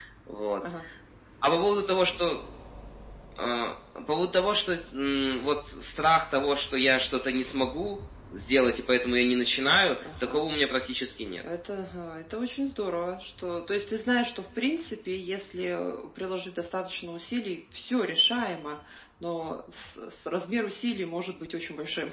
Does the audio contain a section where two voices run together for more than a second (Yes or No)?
No